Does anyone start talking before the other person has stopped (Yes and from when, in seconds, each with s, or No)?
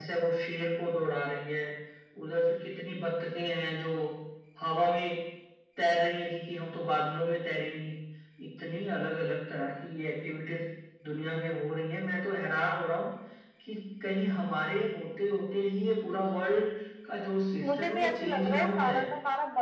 Yes, from 17.6 s